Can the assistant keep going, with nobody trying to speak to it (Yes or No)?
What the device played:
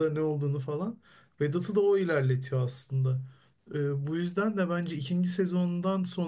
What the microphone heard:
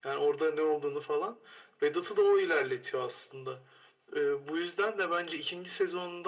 Yes